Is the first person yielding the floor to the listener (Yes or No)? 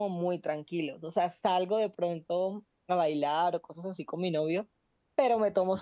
No